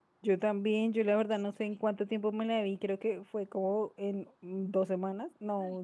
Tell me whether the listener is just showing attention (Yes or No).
No